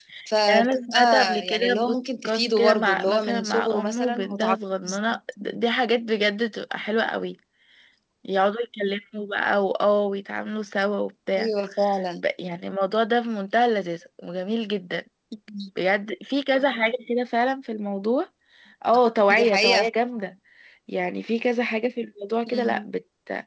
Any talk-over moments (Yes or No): Yes